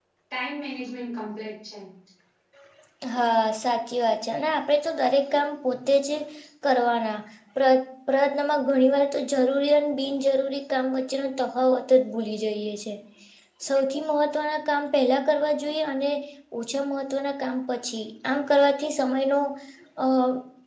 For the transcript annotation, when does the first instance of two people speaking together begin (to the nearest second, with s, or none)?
none